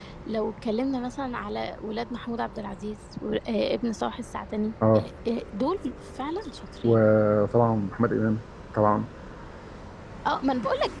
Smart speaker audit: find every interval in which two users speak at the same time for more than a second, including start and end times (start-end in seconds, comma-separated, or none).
none